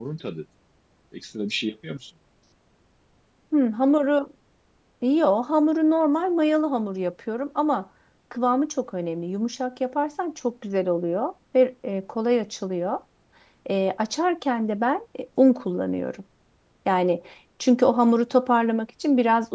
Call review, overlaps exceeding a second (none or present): none